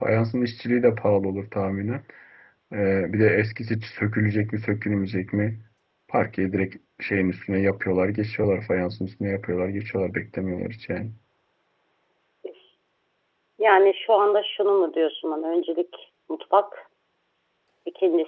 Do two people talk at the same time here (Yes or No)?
No